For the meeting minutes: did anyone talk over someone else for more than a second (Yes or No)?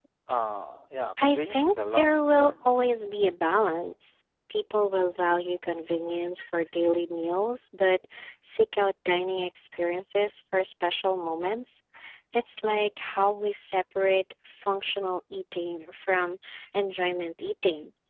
Yes